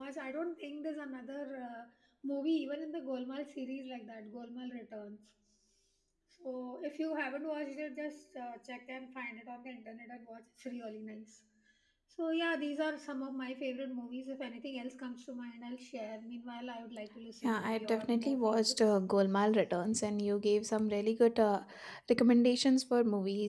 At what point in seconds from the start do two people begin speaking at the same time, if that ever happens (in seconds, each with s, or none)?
17.4 s